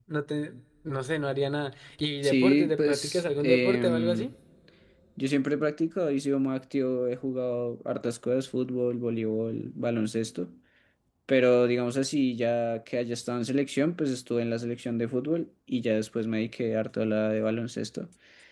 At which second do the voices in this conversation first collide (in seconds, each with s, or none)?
2.2 s